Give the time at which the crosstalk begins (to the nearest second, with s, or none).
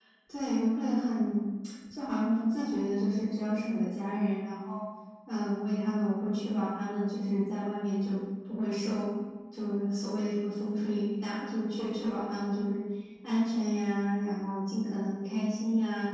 none